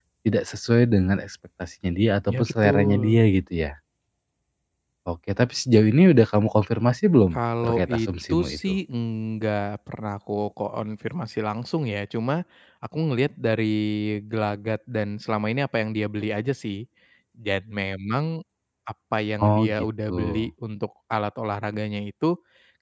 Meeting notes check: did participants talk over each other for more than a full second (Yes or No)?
Yes